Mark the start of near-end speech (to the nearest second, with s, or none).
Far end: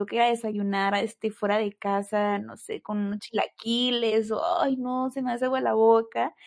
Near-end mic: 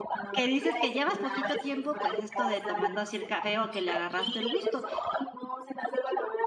0 s